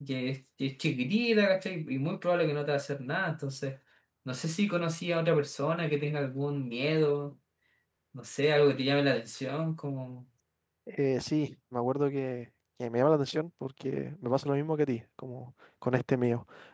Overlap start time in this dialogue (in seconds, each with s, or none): none